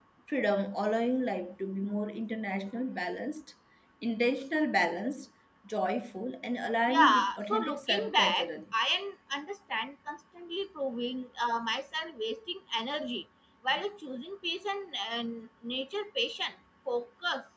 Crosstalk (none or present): present